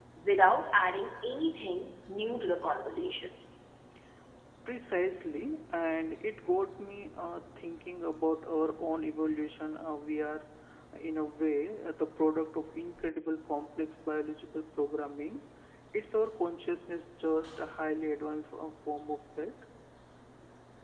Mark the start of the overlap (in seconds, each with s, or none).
none